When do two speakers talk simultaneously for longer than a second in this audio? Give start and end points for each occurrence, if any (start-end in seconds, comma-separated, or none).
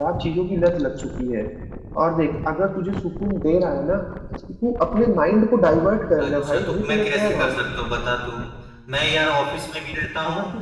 6.2-7.6